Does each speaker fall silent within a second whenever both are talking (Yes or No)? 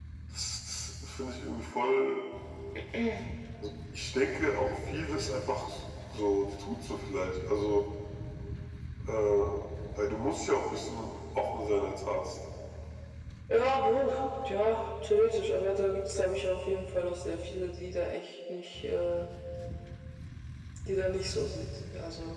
Yes